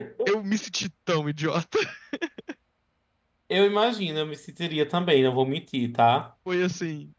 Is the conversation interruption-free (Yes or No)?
Yes